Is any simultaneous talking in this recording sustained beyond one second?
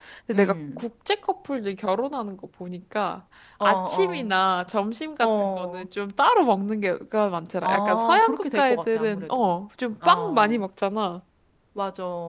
Yes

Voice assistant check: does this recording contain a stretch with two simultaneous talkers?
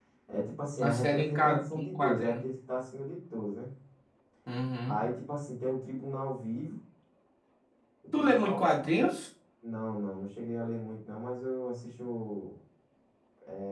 Yes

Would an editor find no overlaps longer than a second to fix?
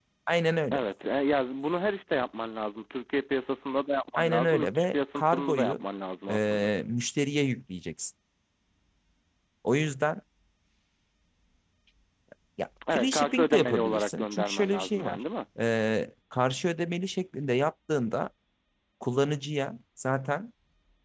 No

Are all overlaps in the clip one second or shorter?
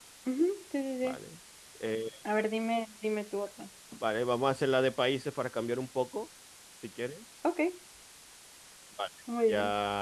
Yes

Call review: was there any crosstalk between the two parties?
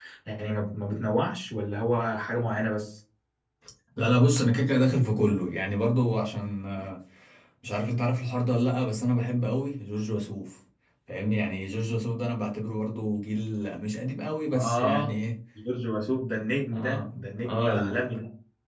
Yes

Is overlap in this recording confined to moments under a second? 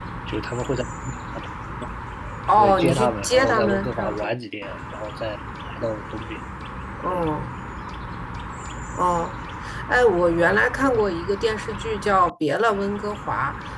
No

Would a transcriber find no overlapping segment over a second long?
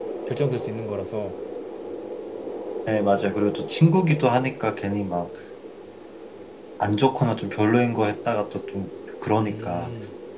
Yes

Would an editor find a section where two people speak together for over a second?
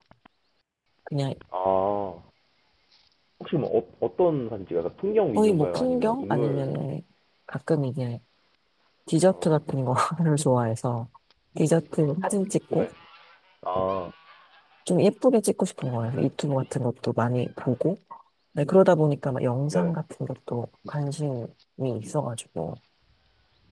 Yes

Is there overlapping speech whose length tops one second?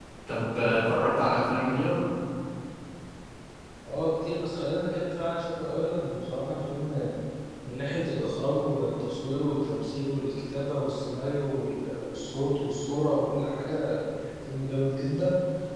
No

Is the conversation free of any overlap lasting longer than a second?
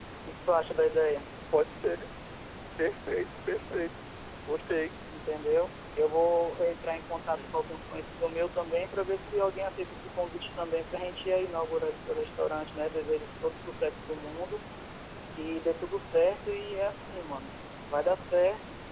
Yes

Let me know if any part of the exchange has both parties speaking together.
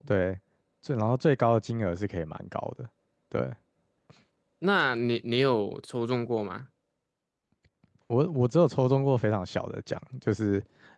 No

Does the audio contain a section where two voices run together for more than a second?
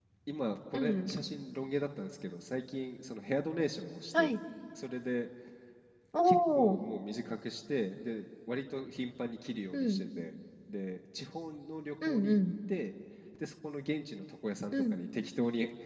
No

